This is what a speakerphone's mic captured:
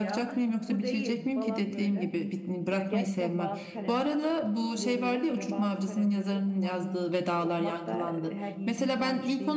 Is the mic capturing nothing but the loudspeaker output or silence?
No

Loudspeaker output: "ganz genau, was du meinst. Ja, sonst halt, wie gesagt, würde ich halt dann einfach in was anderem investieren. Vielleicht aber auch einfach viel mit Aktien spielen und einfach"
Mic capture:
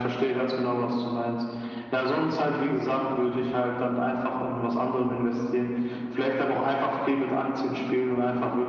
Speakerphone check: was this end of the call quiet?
Yes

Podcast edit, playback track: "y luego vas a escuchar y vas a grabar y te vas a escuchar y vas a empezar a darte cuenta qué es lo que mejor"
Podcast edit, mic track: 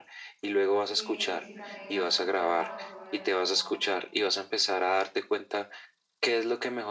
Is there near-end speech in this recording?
Yes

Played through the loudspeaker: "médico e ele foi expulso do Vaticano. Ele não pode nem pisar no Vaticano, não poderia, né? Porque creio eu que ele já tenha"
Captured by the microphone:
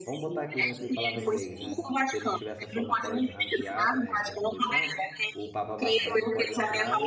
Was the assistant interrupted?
Yes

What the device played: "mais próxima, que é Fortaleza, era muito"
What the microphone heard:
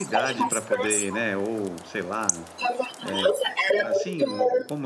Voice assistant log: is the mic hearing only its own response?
No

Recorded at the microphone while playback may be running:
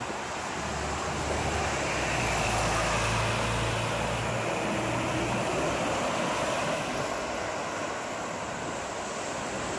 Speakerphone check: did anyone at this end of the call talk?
No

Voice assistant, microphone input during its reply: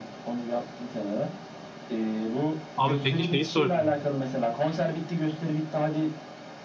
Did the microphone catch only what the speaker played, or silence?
No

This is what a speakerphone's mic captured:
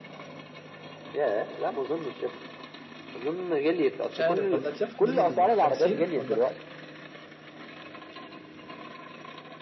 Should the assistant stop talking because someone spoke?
Yes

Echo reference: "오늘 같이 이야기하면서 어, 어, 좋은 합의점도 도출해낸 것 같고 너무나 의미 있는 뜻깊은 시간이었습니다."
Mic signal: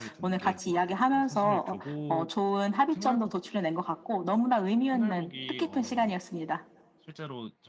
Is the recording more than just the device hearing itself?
Yes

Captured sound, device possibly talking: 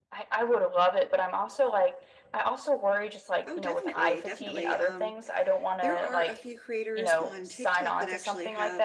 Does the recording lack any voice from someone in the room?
No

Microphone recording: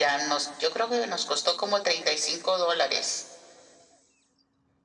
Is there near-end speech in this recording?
No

